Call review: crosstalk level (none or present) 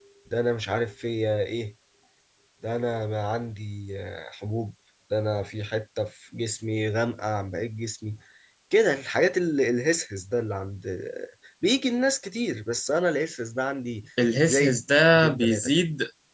present